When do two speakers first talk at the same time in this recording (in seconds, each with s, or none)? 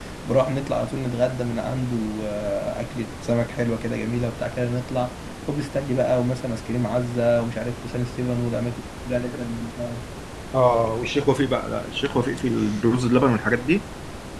none